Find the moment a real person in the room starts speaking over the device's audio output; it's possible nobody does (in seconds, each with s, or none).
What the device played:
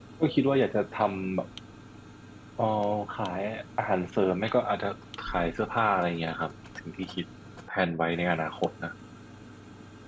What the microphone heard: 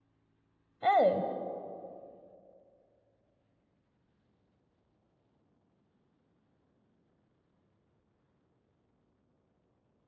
0.8 s